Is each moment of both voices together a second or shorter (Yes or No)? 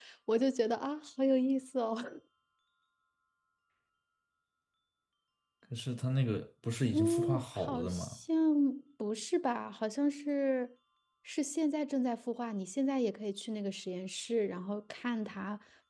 No